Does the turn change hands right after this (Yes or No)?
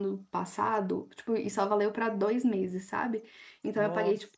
No